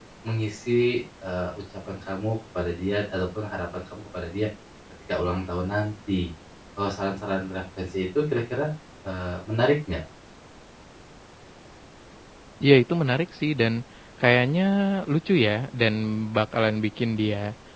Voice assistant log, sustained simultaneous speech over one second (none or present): none